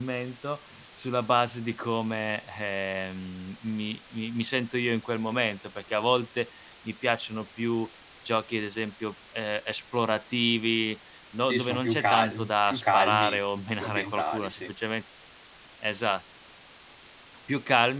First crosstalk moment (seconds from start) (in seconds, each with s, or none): 11.5 s